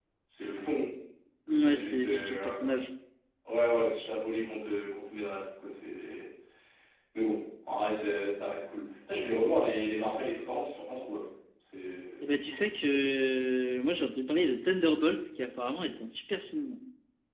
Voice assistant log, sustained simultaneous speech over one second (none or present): present